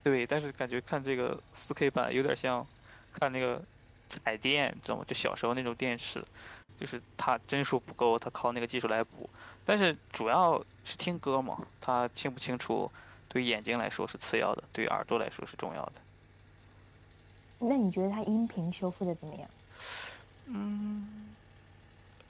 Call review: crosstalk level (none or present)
none